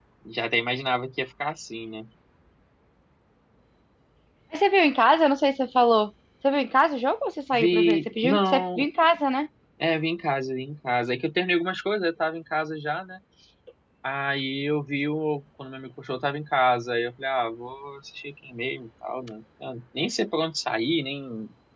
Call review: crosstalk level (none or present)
present